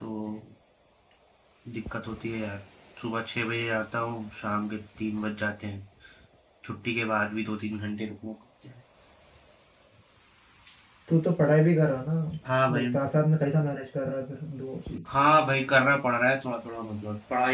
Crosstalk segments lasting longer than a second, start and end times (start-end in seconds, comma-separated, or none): none